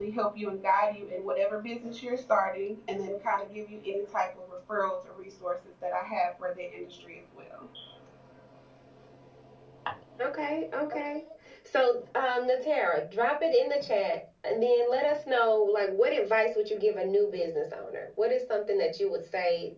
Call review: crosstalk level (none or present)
none